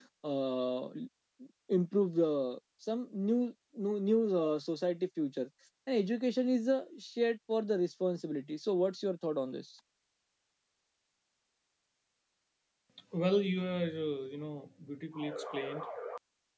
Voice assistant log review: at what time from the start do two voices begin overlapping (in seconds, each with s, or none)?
none